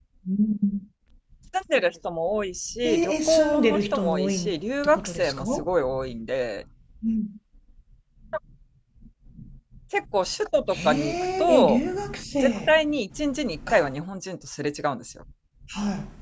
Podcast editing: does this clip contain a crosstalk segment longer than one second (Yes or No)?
Yes